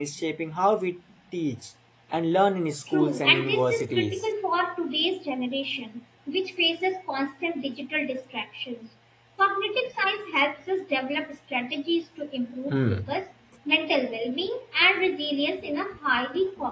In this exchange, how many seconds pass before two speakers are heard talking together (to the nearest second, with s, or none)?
3 s